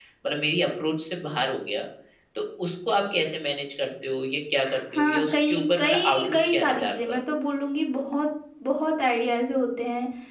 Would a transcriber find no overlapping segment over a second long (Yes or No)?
No